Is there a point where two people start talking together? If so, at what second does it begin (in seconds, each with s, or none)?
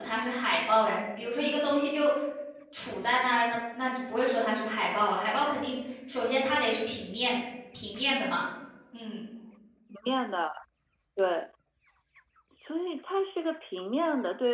none